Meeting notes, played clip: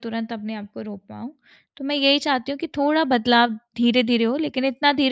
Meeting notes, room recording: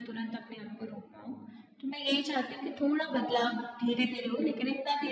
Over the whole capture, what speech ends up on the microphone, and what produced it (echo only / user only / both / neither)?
echo only